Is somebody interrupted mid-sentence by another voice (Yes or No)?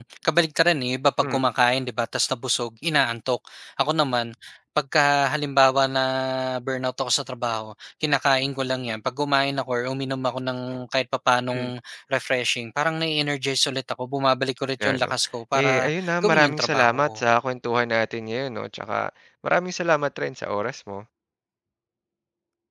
Yes